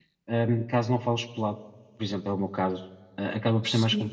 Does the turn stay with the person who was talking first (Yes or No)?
Yes